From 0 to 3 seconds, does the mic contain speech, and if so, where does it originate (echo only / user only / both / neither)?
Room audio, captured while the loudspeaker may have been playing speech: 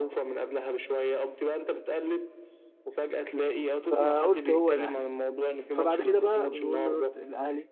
echo only